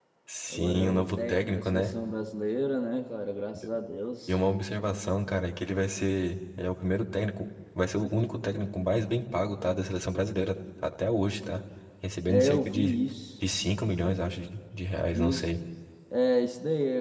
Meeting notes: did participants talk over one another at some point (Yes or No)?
Yes